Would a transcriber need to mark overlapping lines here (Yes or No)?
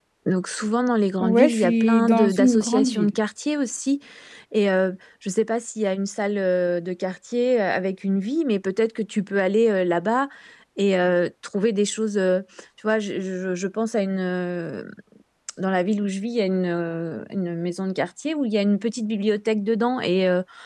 Yes